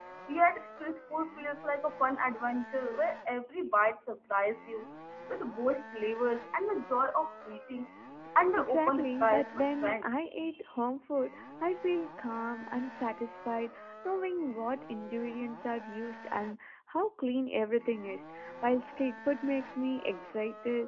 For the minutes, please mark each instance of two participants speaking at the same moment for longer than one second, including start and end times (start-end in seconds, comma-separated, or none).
8.6-10.1